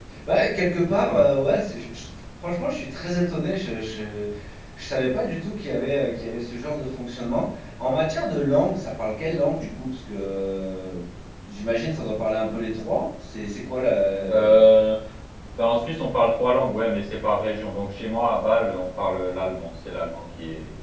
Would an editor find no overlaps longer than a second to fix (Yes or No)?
Yes